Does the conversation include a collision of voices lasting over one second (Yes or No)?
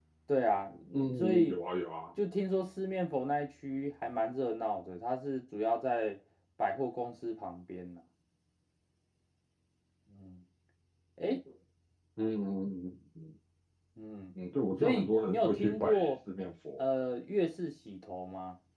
Yes